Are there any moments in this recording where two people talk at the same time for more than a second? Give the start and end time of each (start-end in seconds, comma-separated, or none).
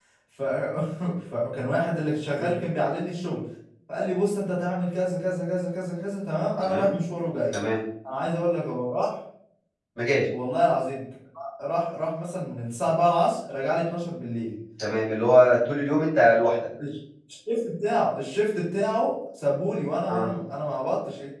none